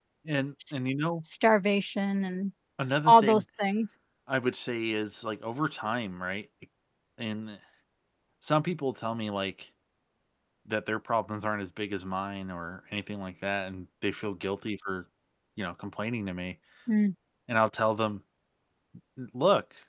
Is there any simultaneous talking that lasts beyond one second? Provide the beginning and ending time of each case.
none

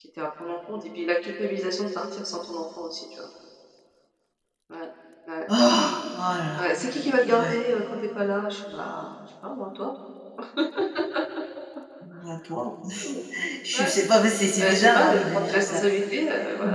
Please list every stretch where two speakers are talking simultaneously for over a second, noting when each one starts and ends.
14.6-15.8

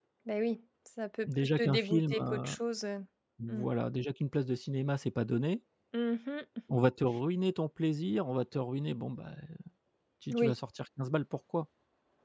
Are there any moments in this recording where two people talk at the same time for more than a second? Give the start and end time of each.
1.2-2.5

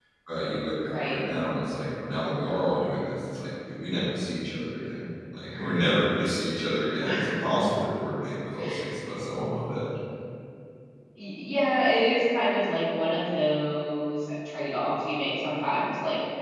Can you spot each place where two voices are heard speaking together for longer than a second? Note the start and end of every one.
none

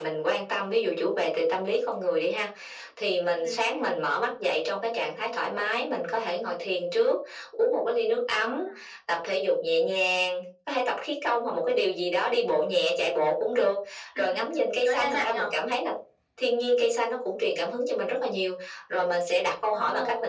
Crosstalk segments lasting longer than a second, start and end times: 14.2-15.4

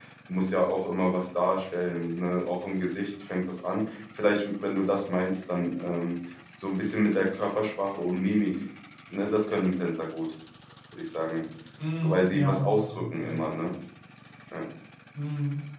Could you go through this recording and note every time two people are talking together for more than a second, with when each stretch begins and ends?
12.0-13.5

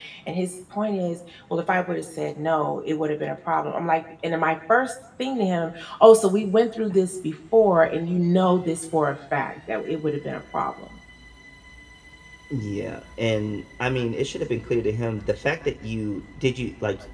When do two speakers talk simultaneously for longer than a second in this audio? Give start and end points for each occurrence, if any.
none

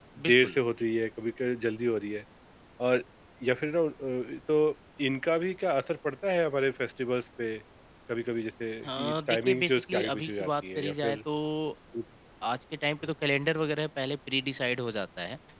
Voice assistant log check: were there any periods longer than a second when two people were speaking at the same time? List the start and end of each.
8.8-11.1

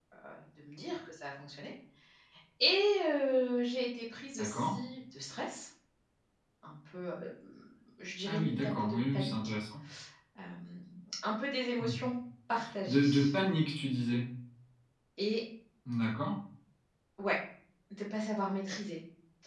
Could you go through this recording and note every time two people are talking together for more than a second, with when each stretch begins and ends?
8.2-9.5

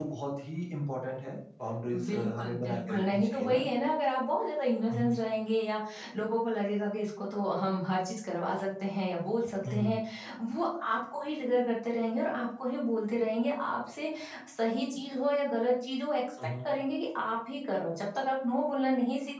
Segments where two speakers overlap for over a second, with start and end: 2.0-3.6

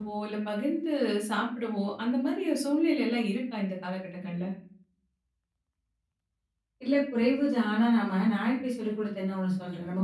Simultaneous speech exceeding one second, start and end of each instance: none

